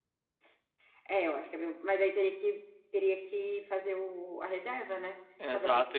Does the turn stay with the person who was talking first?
No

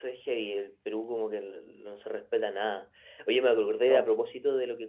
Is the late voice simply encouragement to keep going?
Yes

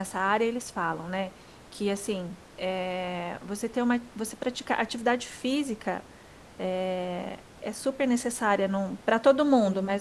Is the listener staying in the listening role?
Yes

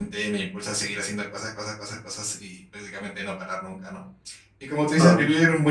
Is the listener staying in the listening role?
Yes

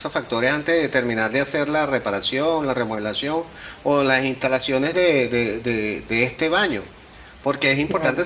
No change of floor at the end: Yes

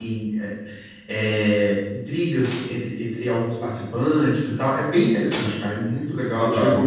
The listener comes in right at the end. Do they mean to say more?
Yes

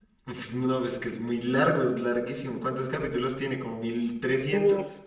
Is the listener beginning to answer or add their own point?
Yes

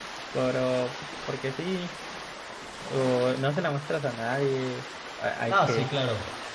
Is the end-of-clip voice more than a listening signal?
Yes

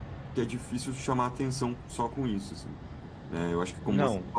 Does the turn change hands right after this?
No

